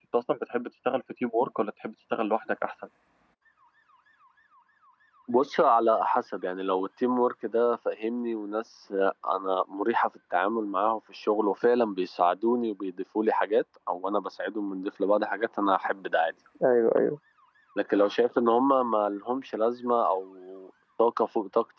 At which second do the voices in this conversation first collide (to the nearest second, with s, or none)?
none